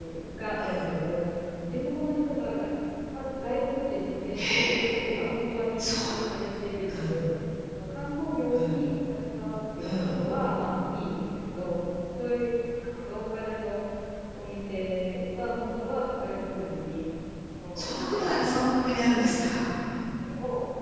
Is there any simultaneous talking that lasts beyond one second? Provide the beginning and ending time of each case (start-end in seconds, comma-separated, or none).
17.8-19.1